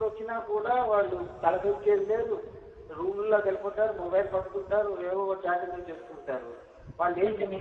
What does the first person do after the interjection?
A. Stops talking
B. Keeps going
B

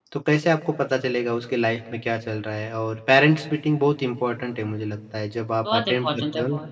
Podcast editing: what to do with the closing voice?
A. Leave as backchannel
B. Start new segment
B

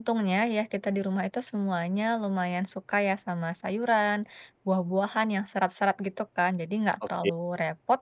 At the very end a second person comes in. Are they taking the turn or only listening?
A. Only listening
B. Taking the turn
A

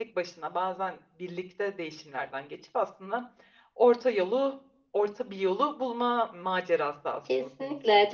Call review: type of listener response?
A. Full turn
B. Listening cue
A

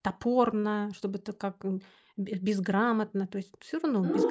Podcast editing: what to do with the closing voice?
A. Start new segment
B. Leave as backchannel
A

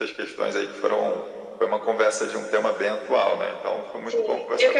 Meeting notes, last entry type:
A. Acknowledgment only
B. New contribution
B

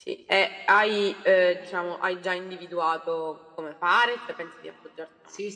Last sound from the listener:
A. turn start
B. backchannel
A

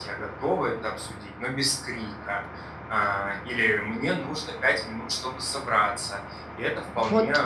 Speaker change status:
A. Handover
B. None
B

